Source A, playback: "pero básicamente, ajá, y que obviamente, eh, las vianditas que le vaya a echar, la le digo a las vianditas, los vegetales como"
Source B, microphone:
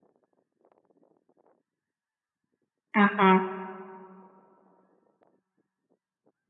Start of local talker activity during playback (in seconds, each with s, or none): 2.9 s